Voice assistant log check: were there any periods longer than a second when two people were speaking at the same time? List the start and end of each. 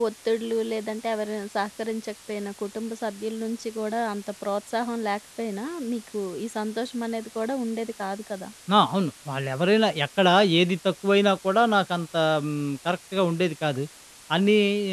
none

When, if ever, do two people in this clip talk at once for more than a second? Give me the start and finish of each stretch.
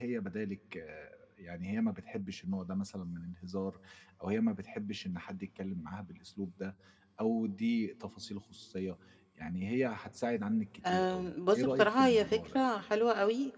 10.9-12.6

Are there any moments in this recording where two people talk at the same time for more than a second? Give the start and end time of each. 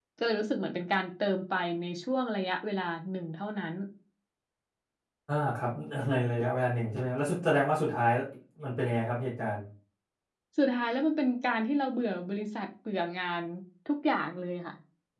none

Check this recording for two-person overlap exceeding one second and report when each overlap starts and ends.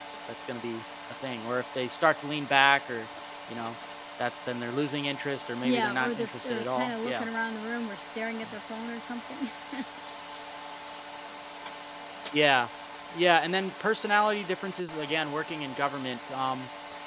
5.6-7.2

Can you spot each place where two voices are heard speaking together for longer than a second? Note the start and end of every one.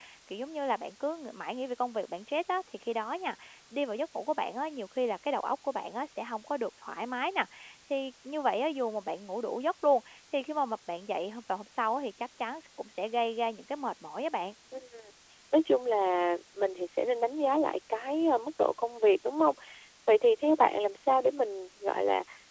none

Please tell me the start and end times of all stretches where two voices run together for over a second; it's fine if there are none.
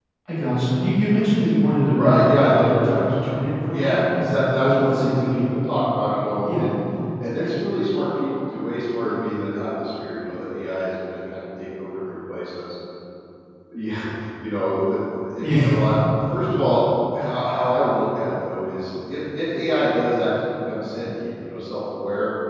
1.9-3.3, 3.7-5.6

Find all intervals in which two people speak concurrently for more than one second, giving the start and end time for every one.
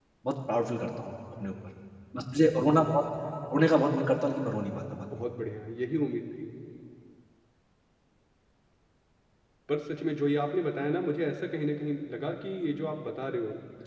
none

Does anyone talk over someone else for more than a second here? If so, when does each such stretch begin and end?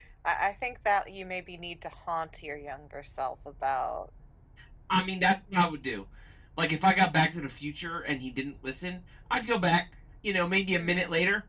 none

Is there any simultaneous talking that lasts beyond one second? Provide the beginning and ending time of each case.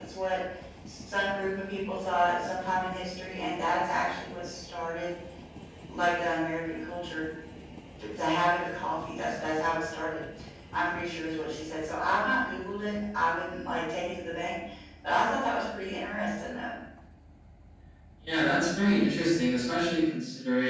none

